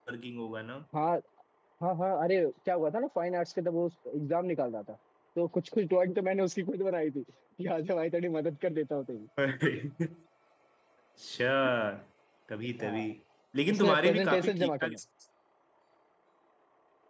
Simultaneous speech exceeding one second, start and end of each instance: 13.7-14.9

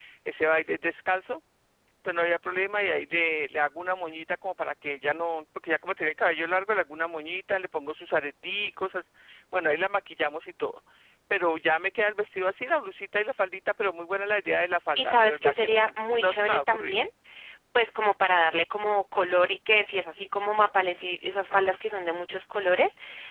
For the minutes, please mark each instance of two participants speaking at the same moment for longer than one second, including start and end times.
15.0-17.0

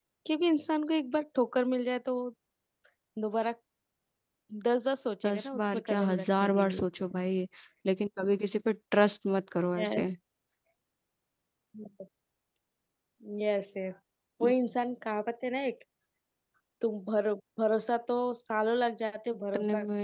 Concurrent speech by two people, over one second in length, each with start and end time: 5.2-6.8

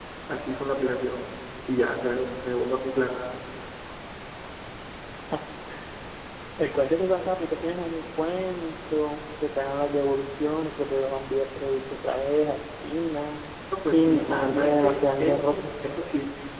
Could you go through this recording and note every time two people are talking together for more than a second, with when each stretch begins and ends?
13.9-15.6

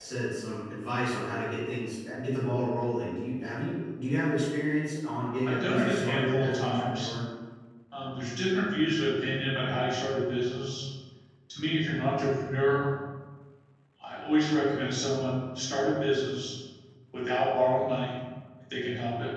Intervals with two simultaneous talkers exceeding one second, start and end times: 5.4-7.1

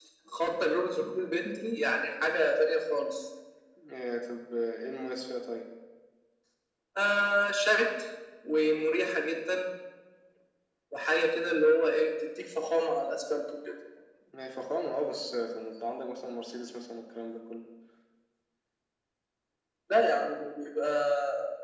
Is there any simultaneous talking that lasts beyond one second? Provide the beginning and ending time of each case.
none

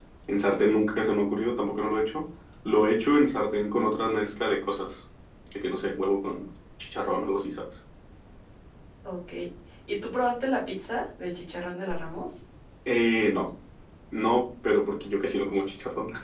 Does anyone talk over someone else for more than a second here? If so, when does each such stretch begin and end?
none

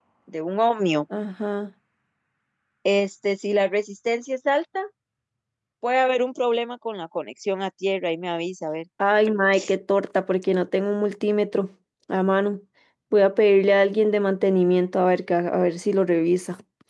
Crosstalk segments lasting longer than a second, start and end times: none

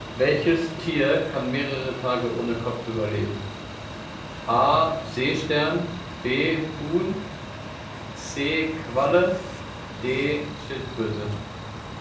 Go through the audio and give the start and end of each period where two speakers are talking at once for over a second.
none

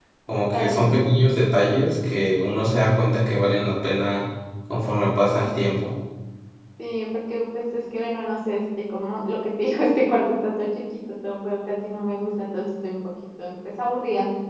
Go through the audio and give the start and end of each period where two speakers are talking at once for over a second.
none

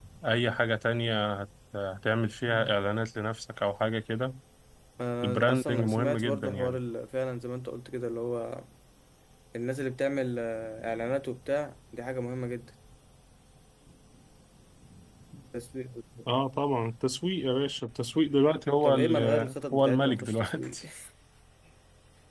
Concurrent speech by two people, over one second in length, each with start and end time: 5.2-6.8, 18.8-20.8

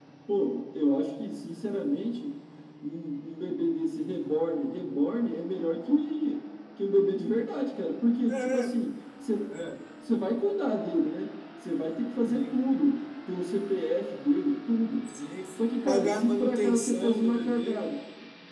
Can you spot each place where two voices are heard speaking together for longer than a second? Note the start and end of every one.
15.8-17.8

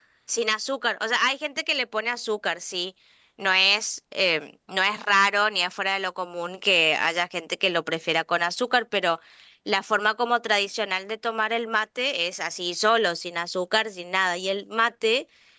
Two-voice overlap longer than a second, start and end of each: none

